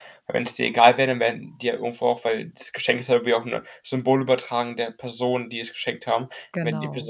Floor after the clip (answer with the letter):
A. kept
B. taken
A